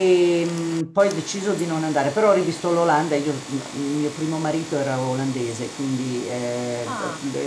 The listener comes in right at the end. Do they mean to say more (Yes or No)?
No